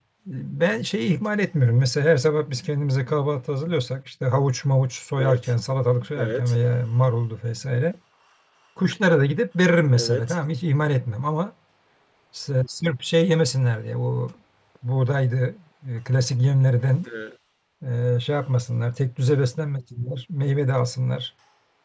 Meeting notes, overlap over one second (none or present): none